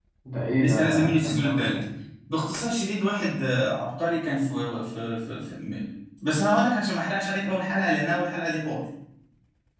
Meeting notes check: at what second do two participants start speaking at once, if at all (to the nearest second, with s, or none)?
1 s